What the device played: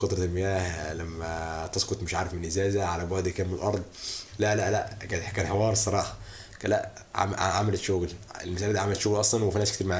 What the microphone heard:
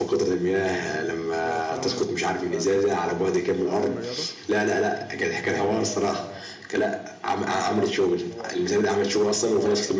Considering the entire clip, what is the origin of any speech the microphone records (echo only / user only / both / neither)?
both